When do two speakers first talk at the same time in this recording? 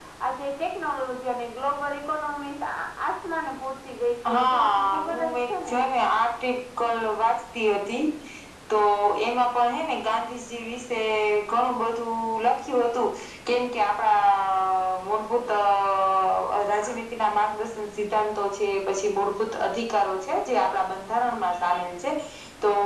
4.2 s

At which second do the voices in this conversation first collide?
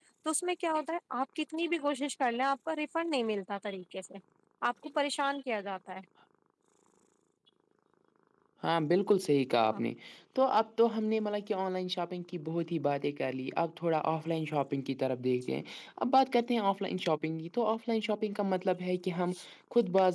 none

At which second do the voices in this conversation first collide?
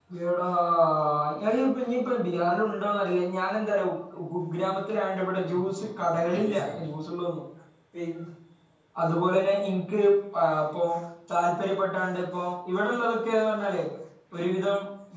5.4 s

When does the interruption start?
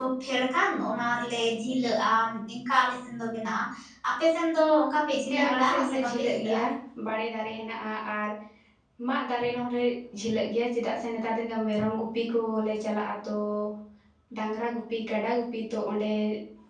5.3 s

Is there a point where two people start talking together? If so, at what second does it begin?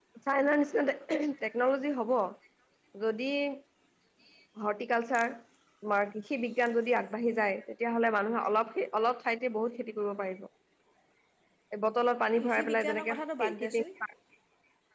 12.4 s

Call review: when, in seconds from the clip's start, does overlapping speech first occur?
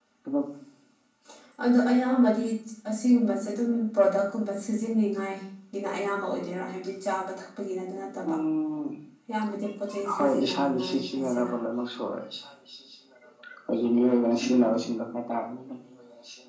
10.2 s

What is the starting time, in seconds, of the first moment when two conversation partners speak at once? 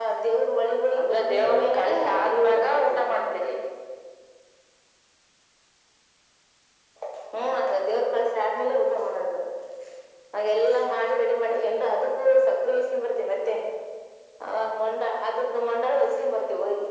1.0 s

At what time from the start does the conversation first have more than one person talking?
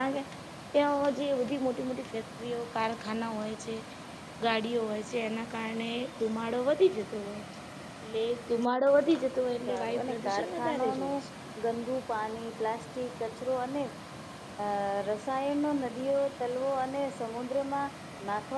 9.7 s

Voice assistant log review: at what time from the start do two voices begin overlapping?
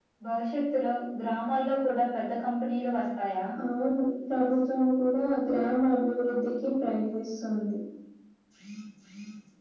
none

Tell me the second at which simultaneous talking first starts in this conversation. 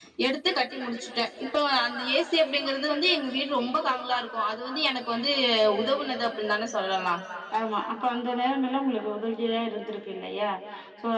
none

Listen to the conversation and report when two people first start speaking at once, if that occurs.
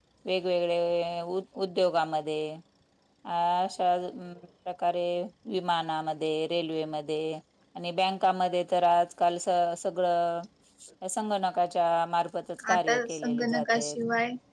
12.6 s

